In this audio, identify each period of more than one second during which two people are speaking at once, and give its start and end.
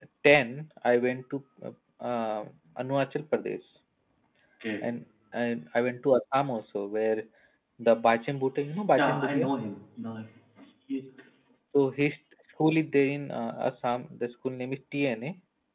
none

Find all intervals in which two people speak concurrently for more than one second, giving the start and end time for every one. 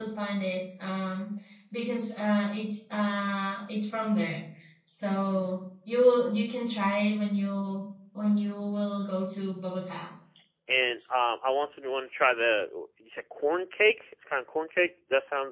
none

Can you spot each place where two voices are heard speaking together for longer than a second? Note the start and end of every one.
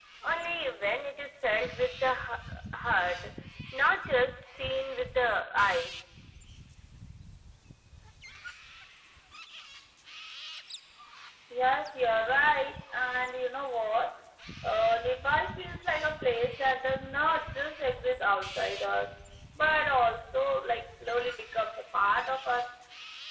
none

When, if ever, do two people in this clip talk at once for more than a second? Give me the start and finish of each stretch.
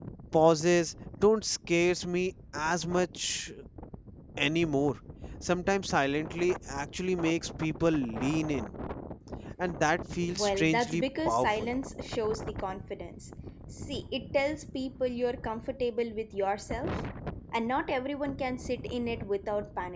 10.3-11.7

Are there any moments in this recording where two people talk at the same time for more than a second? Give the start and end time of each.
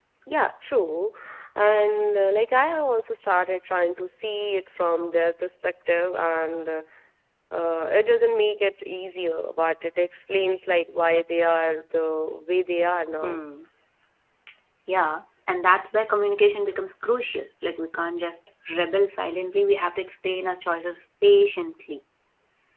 none

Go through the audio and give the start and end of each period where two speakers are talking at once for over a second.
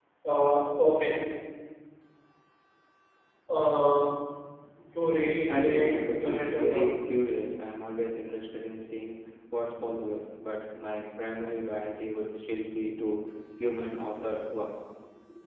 5.5-7.1

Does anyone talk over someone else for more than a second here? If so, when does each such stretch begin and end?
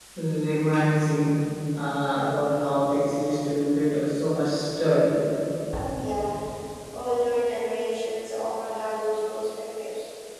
none

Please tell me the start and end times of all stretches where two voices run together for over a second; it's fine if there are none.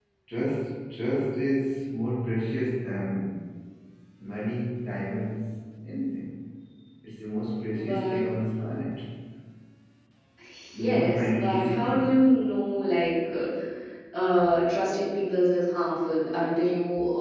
10.8-12.1

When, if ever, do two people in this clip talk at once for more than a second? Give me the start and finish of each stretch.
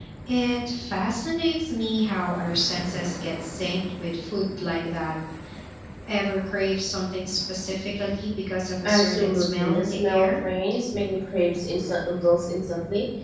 8.8-10.3

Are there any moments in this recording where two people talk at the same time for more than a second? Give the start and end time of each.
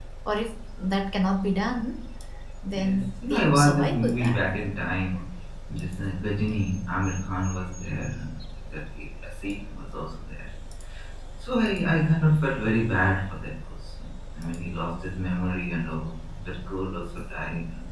2.7-4.4

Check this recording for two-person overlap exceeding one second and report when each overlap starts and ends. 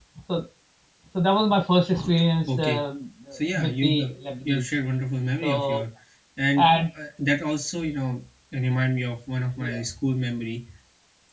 3.3-4.7

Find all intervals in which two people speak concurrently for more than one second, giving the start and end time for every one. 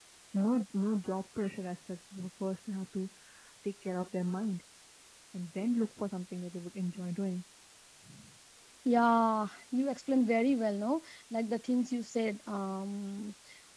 none

